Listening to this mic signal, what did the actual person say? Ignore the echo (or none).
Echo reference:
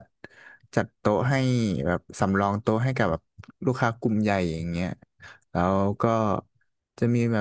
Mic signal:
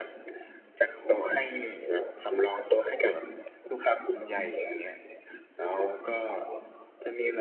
none